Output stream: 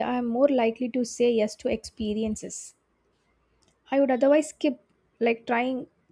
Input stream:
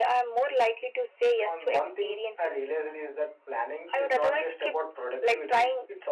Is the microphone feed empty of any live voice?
No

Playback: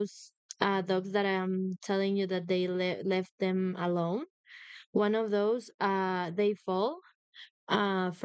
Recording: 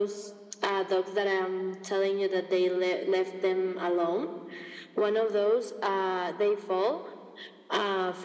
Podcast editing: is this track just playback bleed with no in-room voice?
Yes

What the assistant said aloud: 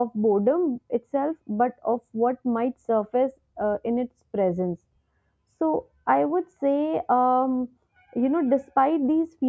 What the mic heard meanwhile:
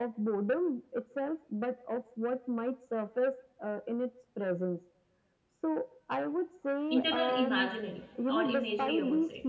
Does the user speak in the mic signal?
Yes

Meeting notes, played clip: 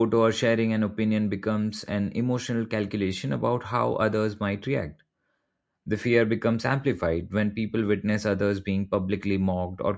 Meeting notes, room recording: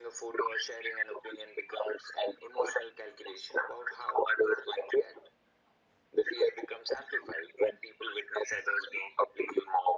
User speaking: No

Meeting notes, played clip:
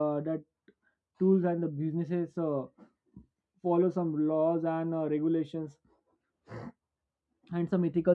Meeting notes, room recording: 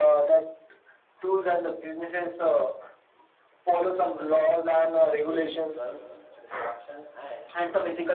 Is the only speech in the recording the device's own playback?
No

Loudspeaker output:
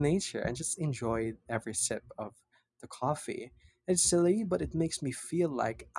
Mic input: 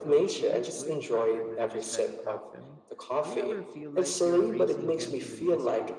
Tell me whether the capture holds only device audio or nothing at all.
No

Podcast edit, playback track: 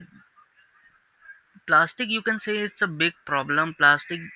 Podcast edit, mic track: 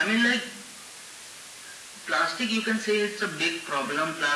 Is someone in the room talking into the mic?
No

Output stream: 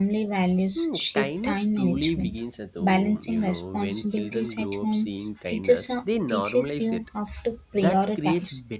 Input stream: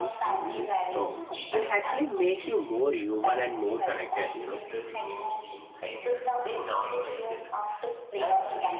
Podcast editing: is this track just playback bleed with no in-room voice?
No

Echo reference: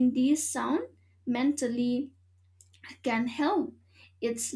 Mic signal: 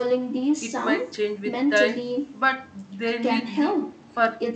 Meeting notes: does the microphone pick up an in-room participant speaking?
Yes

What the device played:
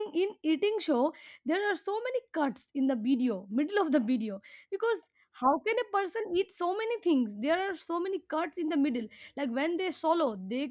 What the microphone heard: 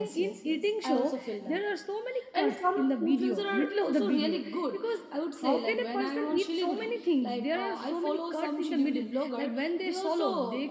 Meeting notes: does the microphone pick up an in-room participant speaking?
Yes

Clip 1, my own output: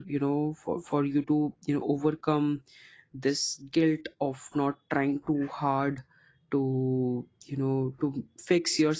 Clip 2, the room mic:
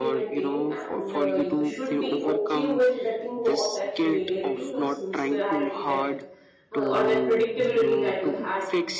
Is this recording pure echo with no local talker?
No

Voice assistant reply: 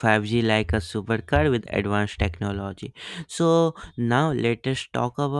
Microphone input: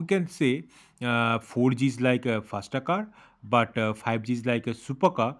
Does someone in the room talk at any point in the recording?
Yes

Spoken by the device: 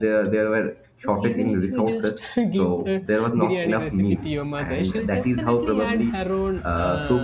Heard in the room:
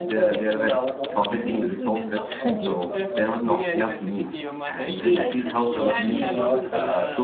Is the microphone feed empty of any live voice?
No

